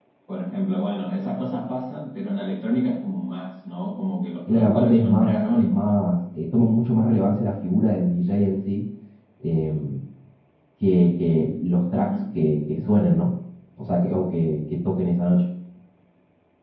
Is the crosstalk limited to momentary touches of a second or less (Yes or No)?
No